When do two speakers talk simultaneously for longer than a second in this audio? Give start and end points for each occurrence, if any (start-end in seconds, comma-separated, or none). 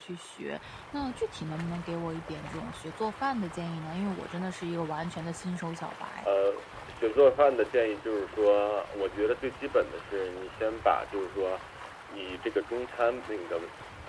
none